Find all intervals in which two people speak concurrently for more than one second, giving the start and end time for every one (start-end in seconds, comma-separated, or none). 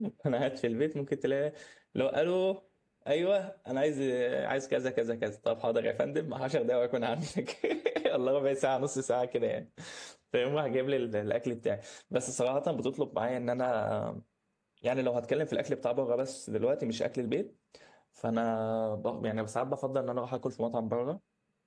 none